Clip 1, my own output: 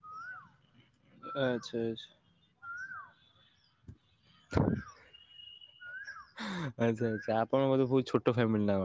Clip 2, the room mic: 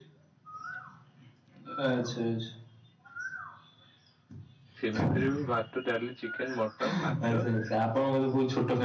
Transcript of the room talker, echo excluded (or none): ସେମିତିରେ ବି ବା। ଡାଲି ଚିକେନ ମଟନ୍ ମାଛ?